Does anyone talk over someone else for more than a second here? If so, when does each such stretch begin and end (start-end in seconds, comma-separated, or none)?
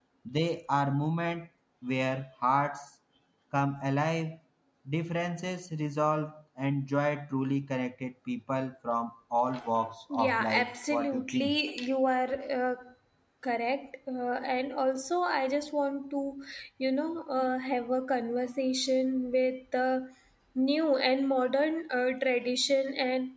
10.1-11.5